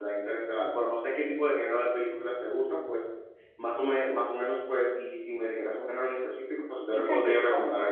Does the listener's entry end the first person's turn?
Yes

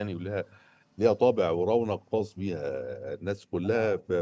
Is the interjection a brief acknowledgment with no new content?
Yes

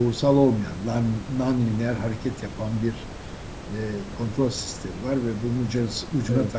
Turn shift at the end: No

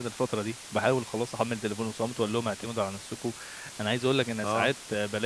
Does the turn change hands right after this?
No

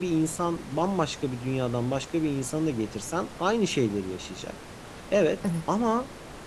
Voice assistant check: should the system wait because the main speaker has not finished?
Yes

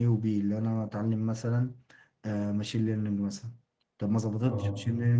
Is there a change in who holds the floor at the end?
No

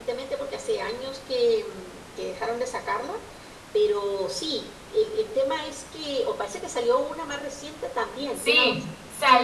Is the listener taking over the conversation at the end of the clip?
Yes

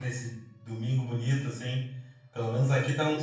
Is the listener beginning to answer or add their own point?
Yes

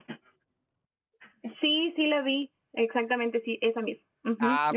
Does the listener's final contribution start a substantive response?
Yes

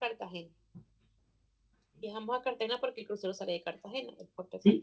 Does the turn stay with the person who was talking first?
No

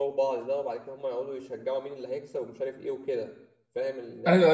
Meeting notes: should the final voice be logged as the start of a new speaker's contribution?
Yes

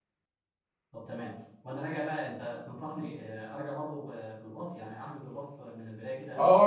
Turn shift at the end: Yes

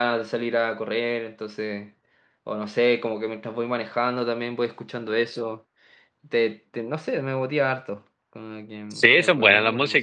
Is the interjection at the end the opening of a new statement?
Yes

